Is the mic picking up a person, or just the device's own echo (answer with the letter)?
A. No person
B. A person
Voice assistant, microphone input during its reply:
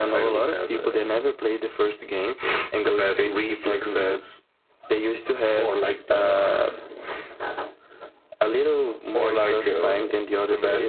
B